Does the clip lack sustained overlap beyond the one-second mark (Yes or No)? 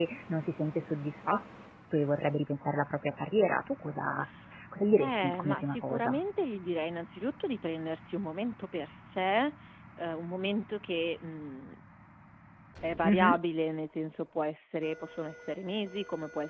No